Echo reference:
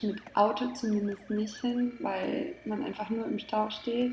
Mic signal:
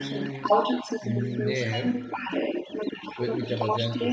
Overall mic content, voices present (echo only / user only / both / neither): both